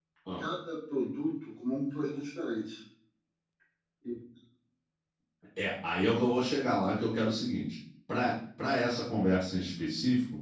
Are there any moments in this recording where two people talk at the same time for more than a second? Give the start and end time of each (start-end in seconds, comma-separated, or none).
none